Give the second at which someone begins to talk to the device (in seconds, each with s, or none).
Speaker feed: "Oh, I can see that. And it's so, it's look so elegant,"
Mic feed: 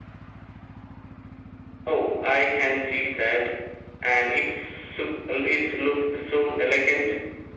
none